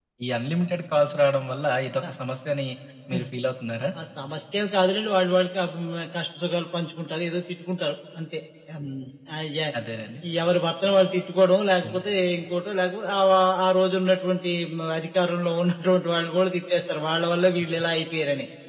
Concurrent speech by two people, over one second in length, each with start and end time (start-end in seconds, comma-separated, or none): none